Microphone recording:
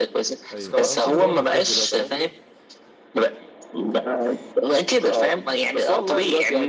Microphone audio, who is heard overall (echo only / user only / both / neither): both